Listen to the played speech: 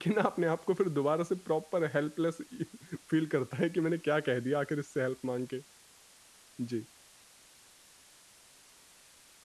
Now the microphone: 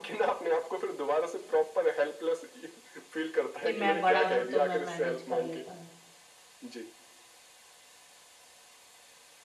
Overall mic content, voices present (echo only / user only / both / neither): both